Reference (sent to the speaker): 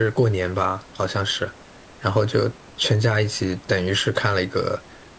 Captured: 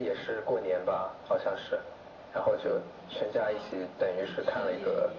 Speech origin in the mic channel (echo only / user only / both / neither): both